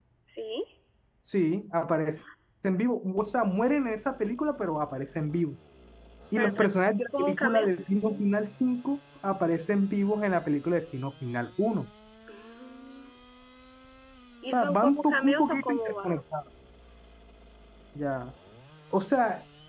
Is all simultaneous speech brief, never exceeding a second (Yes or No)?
No